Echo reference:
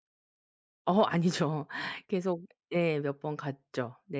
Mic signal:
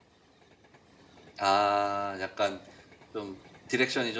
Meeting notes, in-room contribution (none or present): present